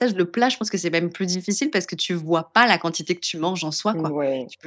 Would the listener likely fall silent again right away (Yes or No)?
No